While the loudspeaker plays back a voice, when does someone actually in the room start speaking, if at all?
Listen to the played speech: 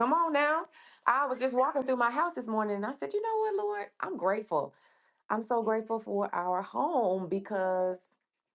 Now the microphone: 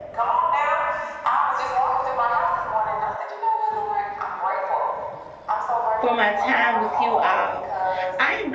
6.0 s

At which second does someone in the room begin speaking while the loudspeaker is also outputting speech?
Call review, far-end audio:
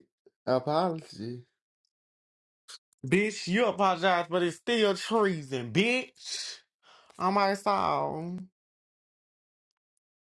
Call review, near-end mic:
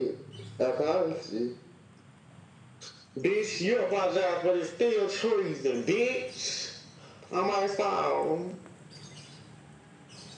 none

